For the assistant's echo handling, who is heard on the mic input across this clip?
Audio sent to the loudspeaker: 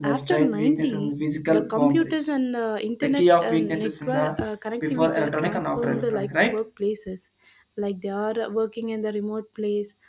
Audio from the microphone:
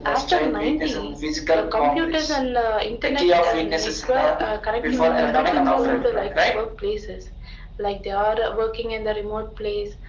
both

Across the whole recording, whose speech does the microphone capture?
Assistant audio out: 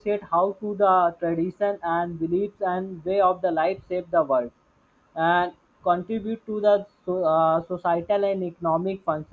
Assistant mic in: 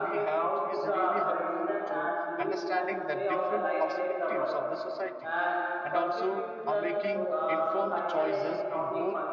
both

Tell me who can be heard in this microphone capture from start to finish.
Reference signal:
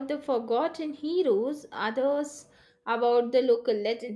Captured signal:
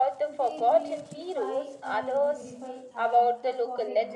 both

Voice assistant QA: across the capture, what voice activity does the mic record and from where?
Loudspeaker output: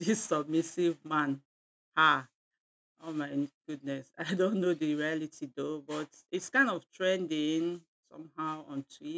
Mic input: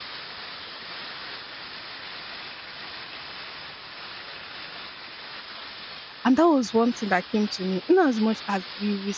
user only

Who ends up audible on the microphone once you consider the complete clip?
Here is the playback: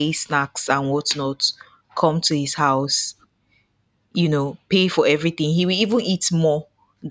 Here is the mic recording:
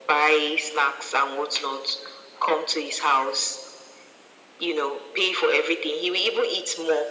echo only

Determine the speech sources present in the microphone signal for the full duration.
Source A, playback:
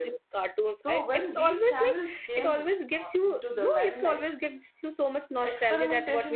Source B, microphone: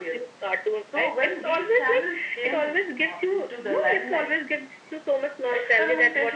echo only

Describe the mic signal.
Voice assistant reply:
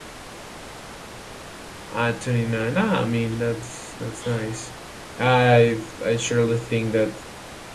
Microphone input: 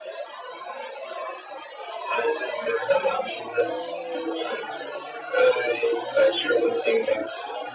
both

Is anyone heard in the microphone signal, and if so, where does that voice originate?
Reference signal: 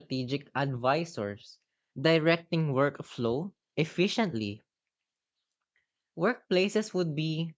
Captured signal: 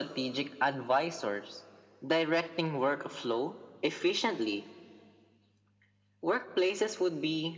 echo only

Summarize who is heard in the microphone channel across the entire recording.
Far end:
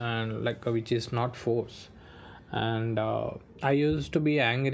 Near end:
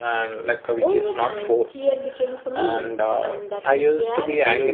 both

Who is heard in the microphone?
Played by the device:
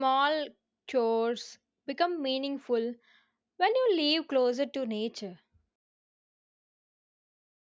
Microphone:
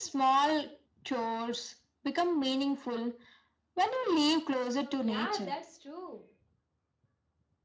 both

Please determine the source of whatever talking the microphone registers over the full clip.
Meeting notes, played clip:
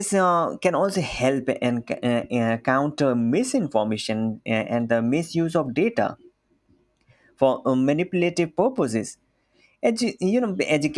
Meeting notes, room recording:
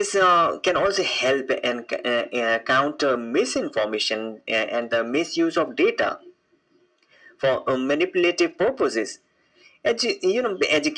echo only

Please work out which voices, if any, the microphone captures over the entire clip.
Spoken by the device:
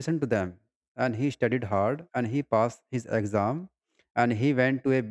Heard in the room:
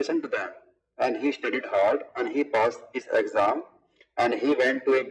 echo only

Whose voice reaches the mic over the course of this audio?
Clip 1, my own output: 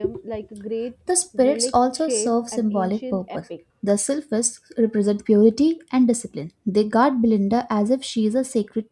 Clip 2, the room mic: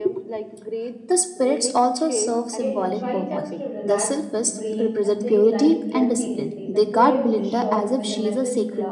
both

